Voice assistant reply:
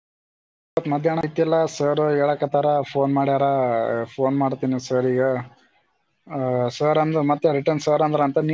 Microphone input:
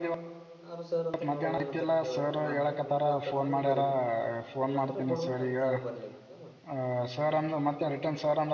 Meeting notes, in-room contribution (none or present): present